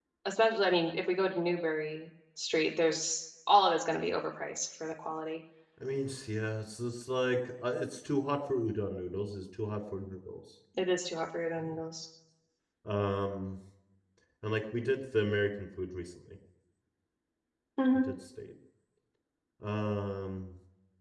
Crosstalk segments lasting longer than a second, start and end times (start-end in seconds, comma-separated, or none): none